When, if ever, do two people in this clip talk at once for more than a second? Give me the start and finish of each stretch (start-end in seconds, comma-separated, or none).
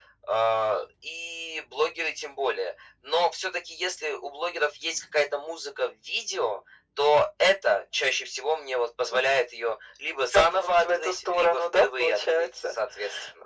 10.3-12.8